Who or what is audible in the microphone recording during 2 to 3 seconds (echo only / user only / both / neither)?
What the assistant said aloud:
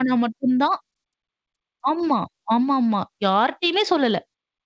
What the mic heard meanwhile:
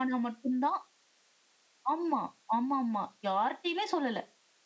echo only